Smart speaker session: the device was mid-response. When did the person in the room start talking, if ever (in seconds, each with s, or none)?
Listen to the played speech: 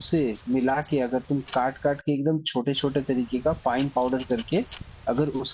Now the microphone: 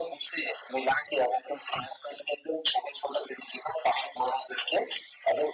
none